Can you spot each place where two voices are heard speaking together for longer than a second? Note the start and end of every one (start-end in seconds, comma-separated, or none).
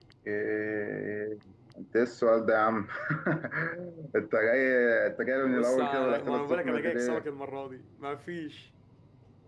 5.4-7.2